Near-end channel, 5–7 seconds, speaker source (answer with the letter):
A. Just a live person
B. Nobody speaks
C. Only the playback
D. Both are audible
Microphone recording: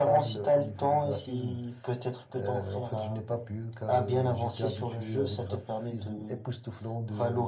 C